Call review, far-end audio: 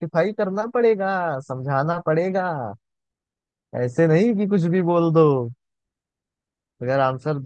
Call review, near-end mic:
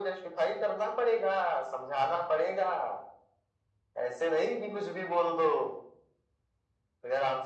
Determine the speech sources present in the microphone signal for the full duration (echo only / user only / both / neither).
echo only